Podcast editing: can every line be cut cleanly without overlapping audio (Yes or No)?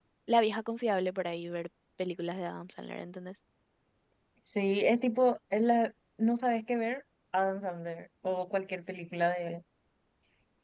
Yes